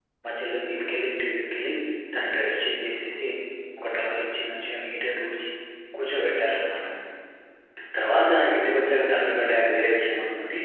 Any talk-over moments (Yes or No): No